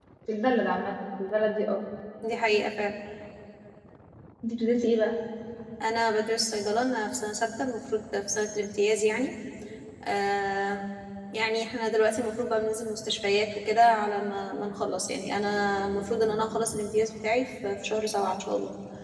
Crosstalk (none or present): none